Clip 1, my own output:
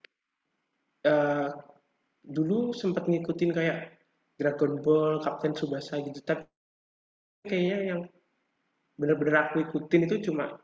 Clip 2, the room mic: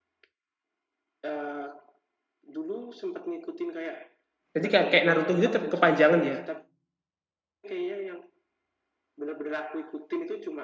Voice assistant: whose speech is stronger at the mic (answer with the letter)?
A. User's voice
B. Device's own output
A